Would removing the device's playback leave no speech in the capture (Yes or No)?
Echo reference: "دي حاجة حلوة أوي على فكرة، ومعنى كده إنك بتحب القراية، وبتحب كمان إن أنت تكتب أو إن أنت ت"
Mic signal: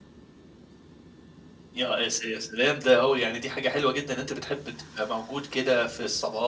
No